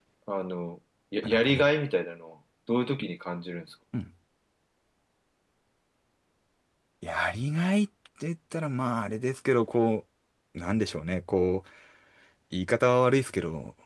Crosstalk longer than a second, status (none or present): none